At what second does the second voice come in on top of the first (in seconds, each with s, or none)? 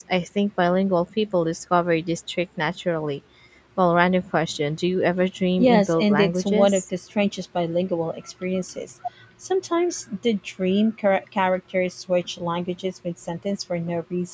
5.6 s